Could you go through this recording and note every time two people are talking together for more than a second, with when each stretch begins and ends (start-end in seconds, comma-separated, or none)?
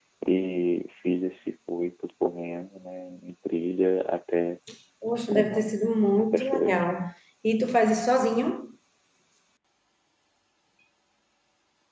5.3-6.8